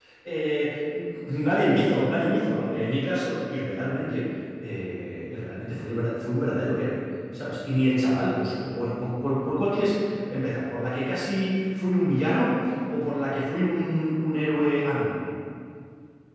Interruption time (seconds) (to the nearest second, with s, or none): none